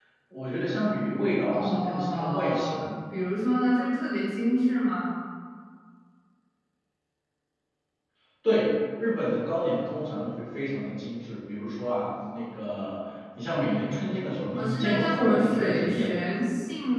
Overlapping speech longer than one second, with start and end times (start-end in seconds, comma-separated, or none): 1.5-2.8, 14.5-16.3